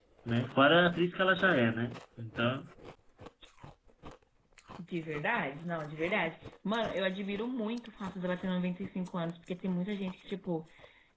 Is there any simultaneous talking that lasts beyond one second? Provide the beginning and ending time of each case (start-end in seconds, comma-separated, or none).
none